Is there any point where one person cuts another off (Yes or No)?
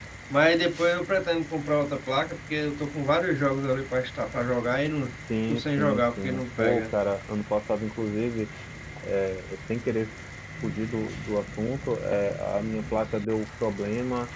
Yes